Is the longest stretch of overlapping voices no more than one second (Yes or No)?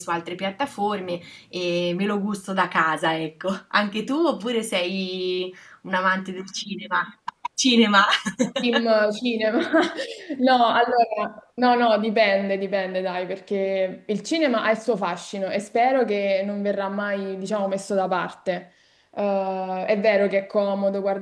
Yes